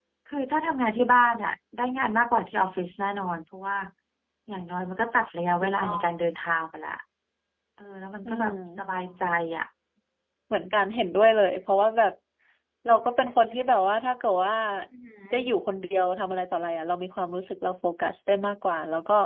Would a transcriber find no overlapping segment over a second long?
Yes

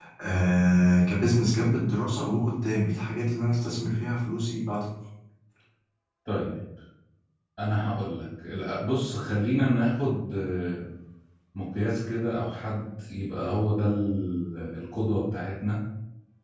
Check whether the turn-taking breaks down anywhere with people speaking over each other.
No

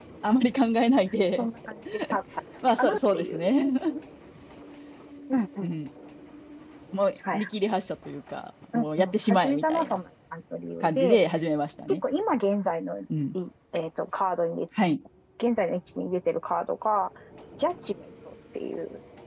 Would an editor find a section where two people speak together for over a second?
Yes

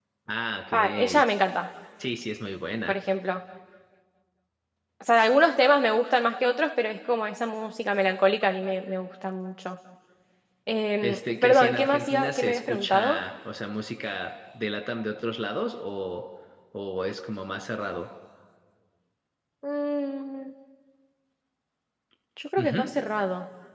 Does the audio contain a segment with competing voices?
Yes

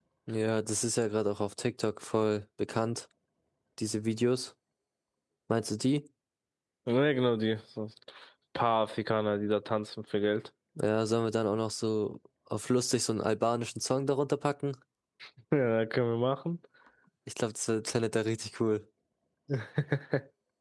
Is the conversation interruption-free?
Yes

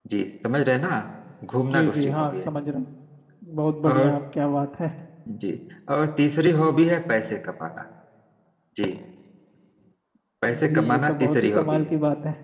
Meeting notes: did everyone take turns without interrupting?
No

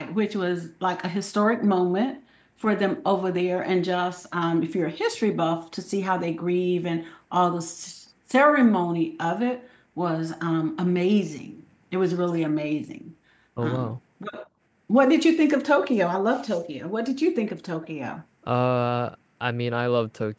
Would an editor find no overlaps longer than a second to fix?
Yes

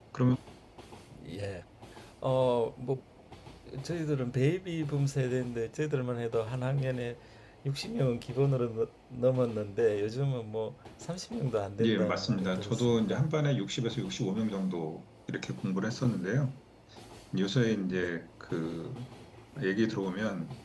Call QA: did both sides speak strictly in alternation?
No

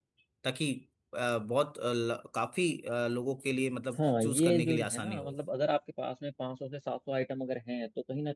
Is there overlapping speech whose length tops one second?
Yes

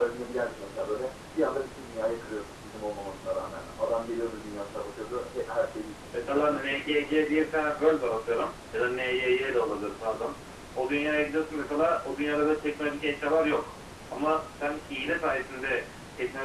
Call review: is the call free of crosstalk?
No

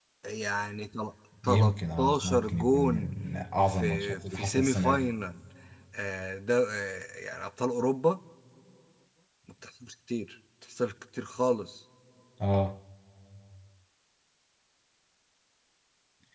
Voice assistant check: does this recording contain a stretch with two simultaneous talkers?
Yes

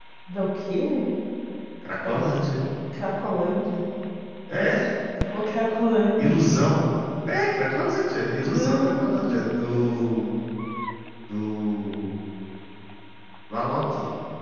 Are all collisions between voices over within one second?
No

